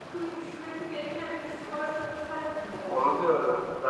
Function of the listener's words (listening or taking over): taking over